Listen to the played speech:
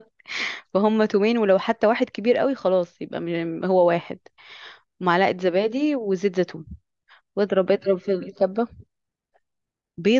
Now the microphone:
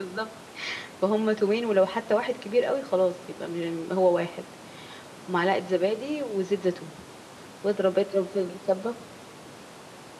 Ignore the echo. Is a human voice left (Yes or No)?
No